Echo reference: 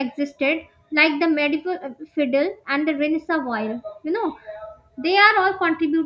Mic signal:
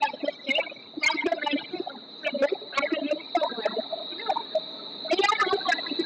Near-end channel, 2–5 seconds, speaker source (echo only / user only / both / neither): echo only